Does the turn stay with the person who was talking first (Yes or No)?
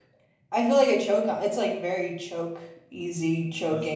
No